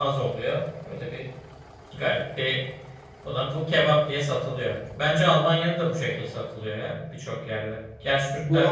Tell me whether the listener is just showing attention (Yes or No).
No